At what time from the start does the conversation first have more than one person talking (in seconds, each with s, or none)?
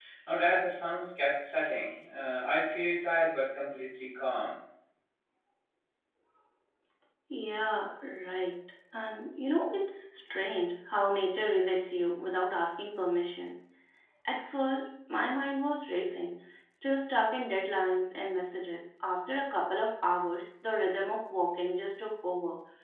none